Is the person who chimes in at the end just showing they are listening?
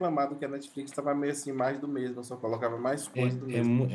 No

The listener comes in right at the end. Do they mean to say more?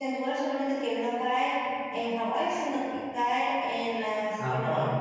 No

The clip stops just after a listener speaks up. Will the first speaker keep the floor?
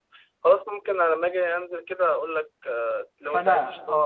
No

